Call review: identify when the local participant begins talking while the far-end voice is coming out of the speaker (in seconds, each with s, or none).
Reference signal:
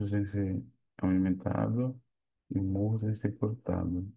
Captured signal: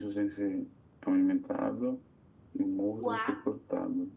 3.0 s